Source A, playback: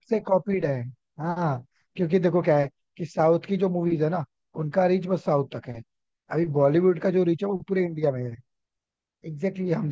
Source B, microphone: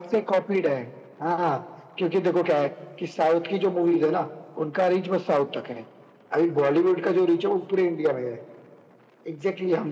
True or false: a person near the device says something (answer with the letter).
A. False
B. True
A